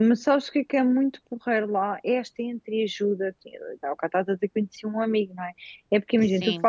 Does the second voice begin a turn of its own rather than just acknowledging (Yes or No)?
No